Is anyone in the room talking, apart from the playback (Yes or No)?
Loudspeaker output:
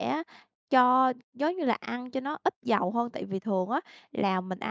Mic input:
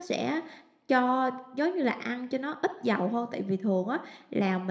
No